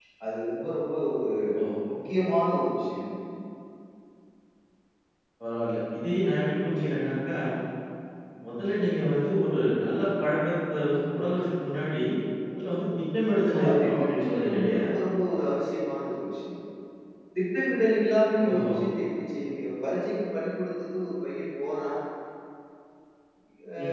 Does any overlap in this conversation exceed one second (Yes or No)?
Yes